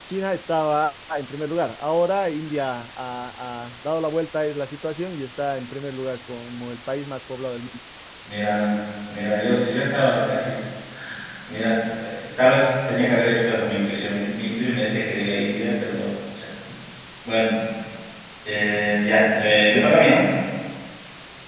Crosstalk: none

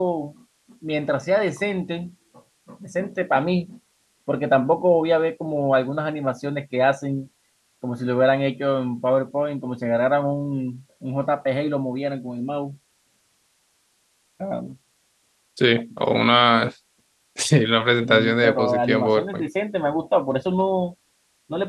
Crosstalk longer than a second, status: present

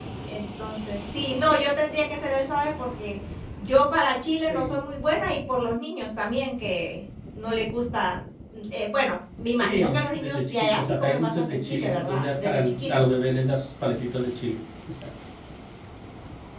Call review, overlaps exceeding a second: present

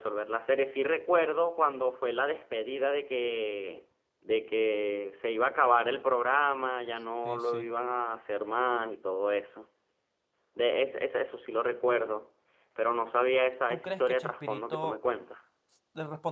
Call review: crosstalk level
present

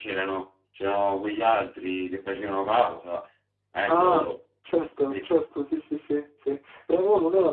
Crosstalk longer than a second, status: none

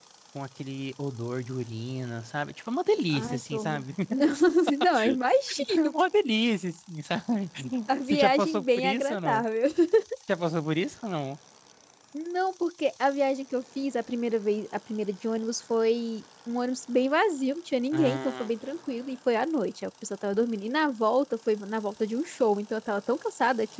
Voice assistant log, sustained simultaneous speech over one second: present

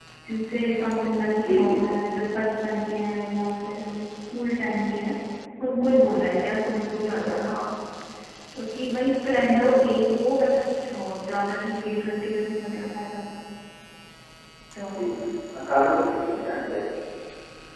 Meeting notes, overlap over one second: none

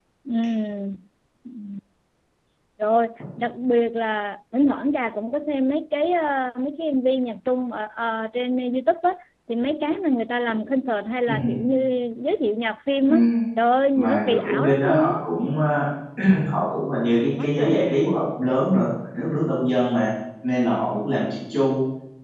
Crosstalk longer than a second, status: present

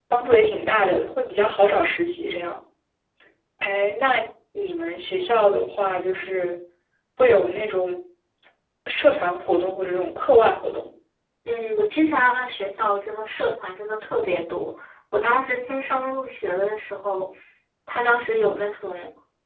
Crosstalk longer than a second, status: none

